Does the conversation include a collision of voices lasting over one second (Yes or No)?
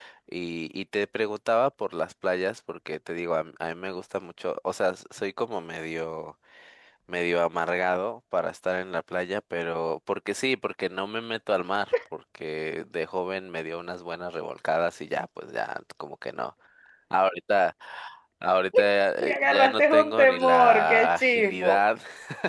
Yes